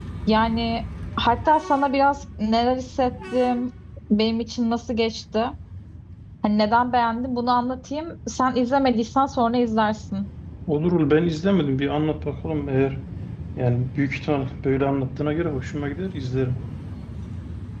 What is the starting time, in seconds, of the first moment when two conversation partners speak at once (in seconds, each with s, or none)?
none